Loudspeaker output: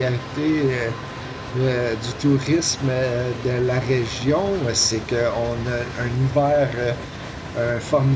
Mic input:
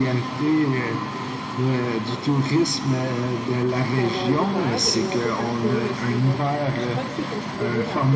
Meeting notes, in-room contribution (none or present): present